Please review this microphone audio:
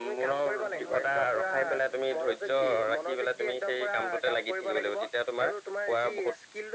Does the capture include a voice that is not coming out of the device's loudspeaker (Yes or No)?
Yes